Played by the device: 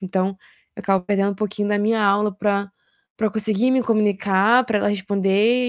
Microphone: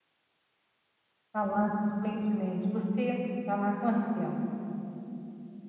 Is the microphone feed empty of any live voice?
No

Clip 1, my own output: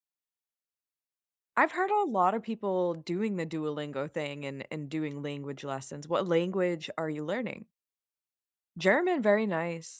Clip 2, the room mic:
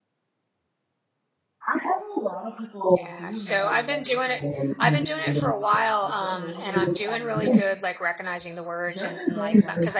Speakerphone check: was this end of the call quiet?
No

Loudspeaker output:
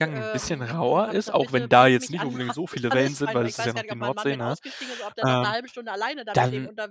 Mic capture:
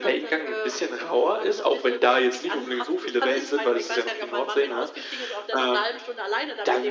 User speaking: No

